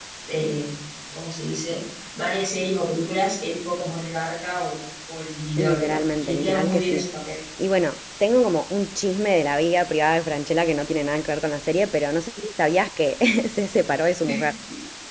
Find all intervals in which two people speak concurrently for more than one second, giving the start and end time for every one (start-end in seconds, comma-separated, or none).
5.6-7.0